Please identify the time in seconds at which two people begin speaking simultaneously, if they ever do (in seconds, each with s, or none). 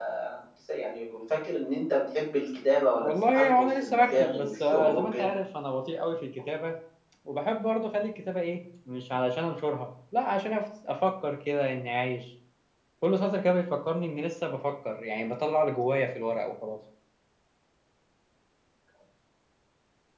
3.0 s